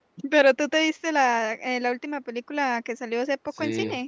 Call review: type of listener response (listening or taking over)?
taking over